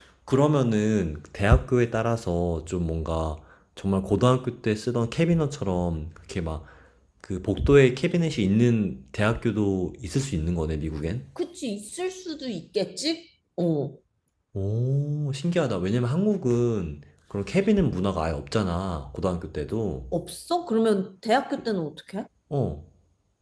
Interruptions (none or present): none